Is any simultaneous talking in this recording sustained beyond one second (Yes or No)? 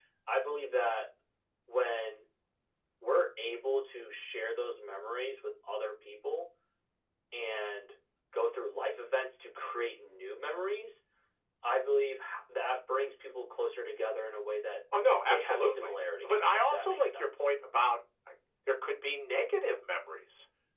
Yes